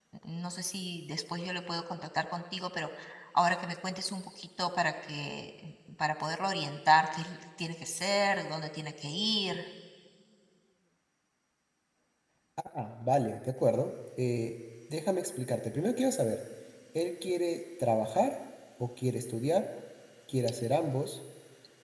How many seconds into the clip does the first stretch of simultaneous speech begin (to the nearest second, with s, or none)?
none